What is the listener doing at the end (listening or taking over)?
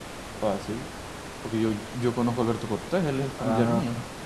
taking over